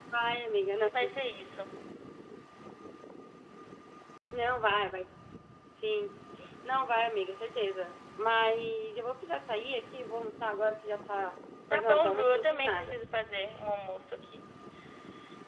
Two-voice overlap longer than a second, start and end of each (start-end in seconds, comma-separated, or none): 11.7-13.0